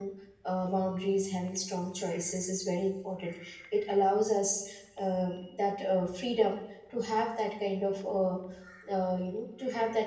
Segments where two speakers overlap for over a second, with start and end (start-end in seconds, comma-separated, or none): none